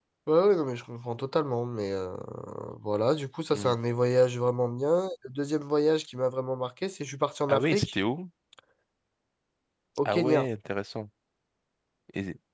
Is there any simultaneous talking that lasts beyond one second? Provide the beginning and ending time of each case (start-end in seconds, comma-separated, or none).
none